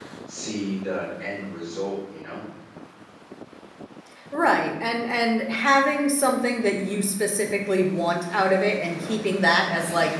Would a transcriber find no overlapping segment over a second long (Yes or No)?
Yes